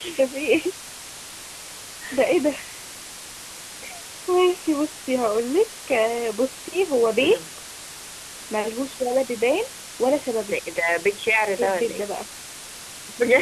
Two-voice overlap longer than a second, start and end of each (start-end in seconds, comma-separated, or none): none